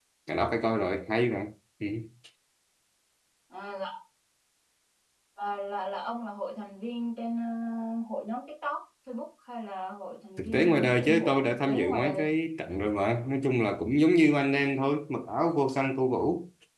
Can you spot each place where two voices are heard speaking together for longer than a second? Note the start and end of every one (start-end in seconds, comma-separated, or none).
10.4-12.2